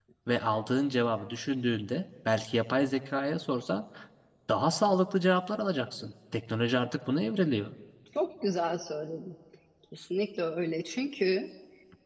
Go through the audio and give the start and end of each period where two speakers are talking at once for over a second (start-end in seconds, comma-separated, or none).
none